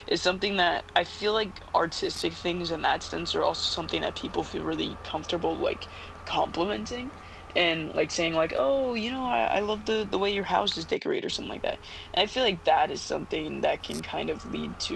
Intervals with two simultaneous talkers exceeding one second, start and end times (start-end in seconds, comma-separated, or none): none